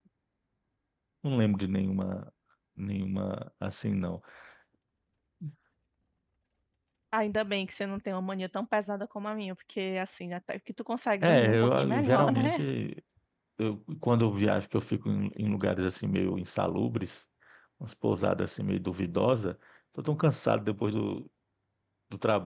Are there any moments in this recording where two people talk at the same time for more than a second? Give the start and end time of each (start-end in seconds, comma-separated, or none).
11.2-12.6